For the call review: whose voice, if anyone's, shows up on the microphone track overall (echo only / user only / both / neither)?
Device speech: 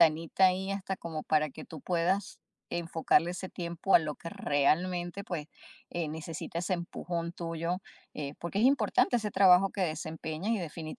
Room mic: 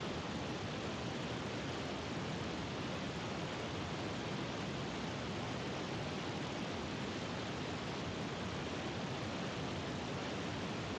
neither